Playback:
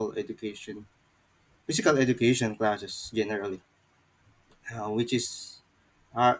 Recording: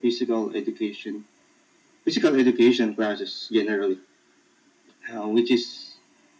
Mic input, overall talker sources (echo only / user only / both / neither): echo only